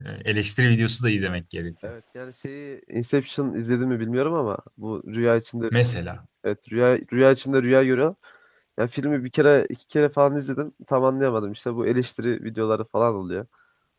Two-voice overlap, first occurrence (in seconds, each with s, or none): none